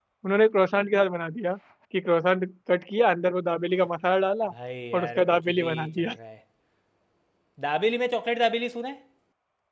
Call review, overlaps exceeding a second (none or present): present